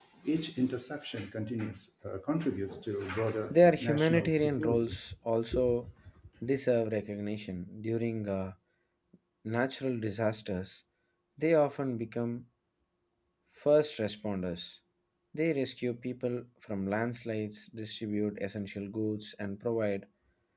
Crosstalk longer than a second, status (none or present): present